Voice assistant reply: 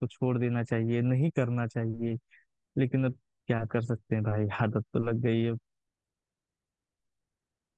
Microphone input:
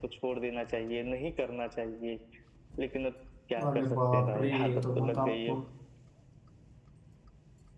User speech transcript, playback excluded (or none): अरे बाप रे ये तो बहुत आपको